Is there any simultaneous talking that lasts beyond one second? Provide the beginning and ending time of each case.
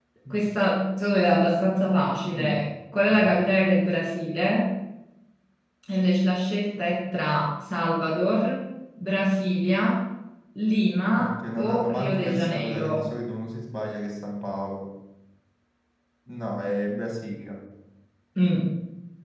11.1-13.0

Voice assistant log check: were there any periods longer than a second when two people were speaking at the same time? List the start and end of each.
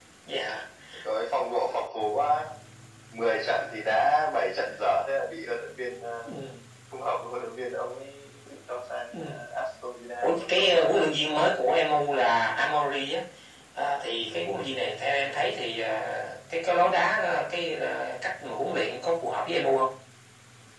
10.2-11.5

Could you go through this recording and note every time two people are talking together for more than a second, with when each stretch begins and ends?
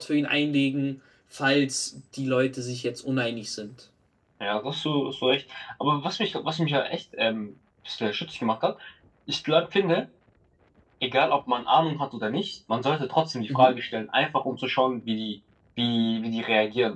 none

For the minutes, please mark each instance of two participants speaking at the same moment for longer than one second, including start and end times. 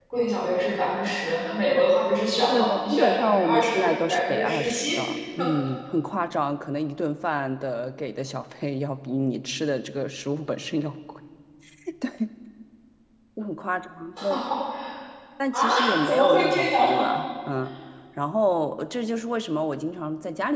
2.5-5.0, 15.5-17.1

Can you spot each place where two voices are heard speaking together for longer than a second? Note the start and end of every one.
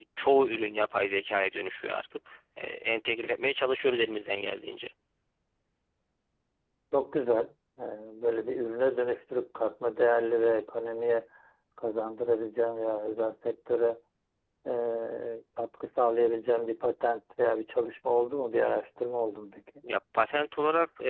none

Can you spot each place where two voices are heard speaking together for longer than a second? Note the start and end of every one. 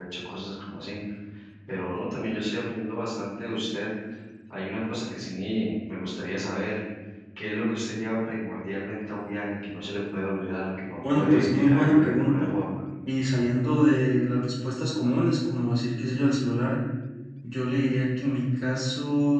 11.1-12.5

